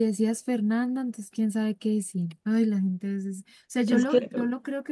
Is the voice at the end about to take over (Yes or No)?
No